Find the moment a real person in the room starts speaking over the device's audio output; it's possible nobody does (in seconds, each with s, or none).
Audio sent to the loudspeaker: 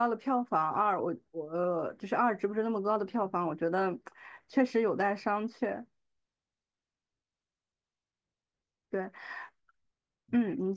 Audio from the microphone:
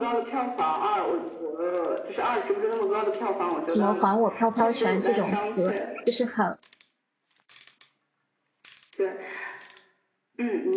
3.7 s